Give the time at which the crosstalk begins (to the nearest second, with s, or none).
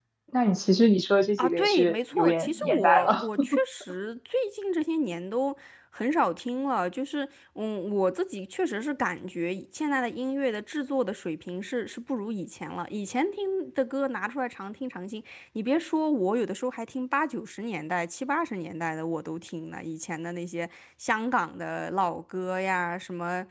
1 s